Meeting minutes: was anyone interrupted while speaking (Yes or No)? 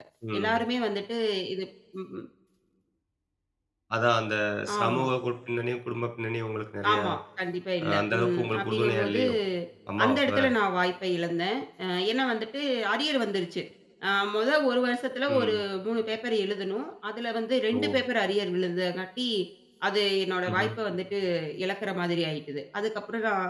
Yes